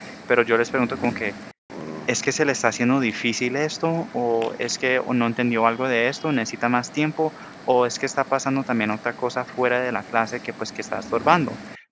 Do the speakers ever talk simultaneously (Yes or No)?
No